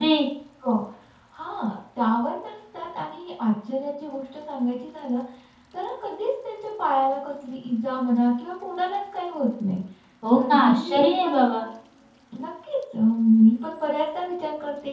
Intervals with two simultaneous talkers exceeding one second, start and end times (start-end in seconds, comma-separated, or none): 10.3-11.6